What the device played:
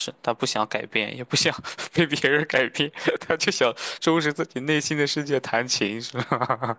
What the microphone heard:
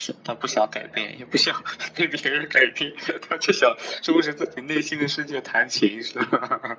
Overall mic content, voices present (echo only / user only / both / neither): echo only